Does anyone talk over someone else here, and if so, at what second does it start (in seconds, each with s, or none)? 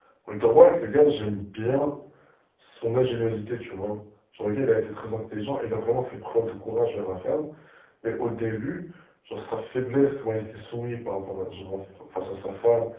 none